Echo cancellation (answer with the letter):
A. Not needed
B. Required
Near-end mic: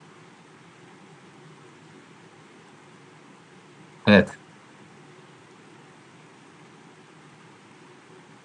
A